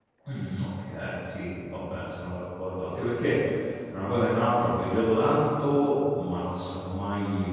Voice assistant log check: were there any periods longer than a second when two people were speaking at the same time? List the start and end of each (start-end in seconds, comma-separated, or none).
none